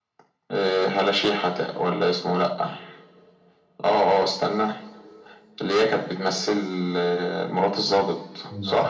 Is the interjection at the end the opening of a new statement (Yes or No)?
Yes